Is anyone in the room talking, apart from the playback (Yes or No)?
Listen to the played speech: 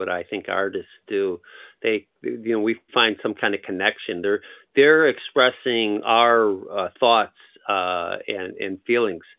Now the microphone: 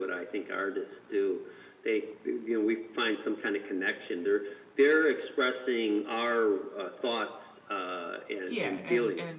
Yes